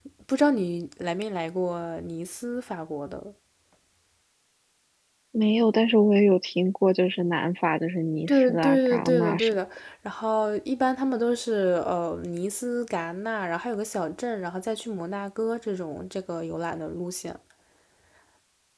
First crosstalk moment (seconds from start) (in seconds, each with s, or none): 8.3 s